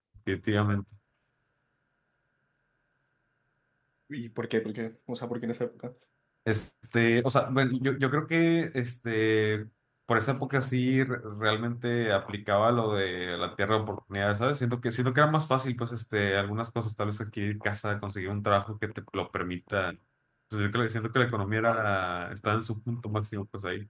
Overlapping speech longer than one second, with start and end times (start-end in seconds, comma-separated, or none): none